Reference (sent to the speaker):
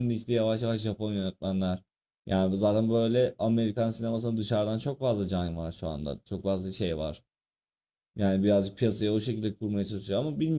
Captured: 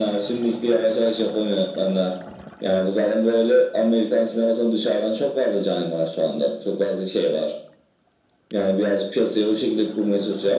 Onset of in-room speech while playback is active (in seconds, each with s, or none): none